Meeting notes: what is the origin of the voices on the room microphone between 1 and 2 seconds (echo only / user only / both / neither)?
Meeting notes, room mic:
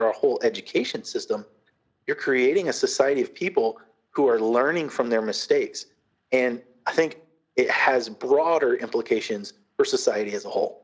echo only